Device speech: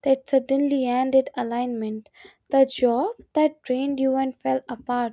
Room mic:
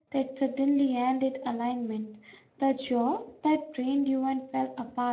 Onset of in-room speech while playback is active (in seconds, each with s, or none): none